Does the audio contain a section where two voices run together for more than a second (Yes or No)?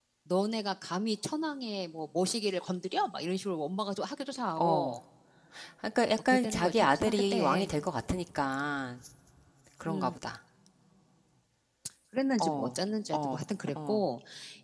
Yes